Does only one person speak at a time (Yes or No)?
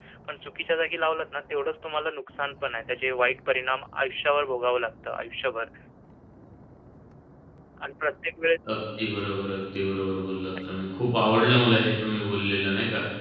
Yes